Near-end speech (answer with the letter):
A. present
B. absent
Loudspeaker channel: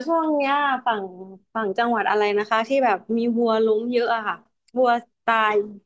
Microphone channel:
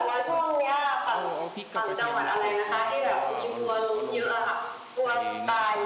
A